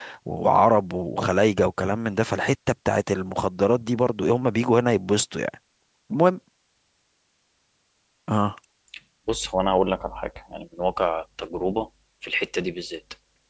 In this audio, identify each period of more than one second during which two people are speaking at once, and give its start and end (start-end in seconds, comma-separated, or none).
none